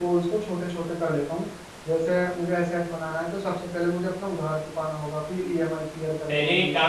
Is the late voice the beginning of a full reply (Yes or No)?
Yes